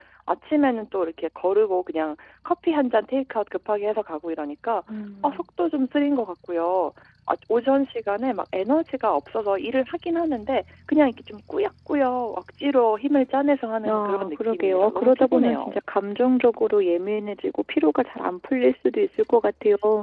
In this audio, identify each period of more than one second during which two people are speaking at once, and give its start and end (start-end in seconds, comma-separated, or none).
13.9-15.7